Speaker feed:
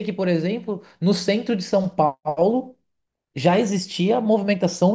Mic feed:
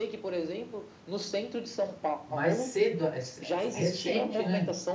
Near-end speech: present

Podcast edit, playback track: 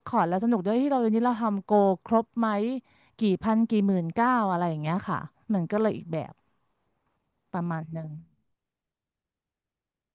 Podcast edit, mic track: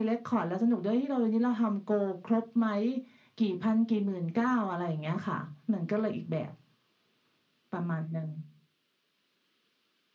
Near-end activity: none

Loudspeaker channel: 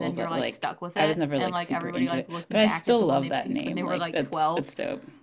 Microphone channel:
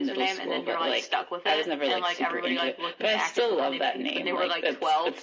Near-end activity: none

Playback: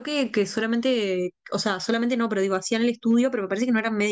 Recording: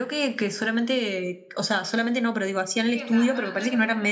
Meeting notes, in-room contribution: present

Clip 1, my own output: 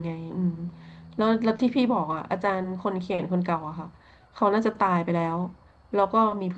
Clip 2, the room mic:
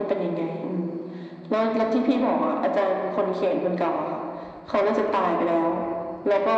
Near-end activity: none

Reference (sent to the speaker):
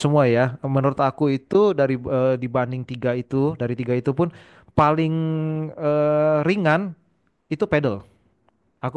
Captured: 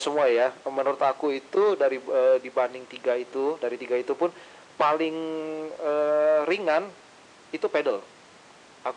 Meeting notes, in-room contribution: none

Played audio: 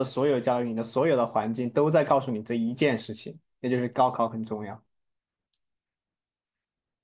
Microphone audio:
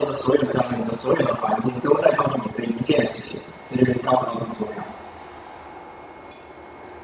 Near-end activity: none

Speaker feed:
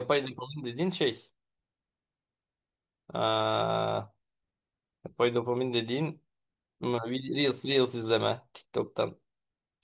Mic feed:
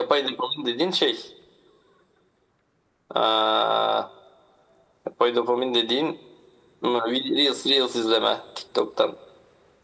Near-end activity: none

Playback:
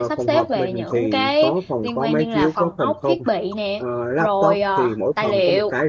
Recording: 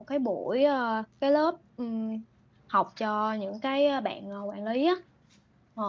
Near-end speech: present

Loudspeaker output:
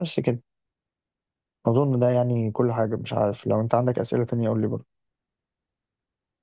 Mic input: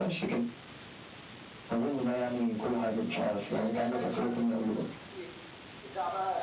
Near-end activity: present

